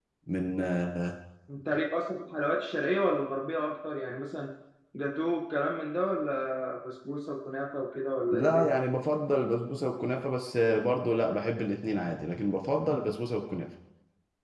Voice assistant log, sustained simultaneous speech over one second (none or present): none